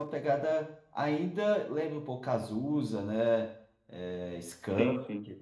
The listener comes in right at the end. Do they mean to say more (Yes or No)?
No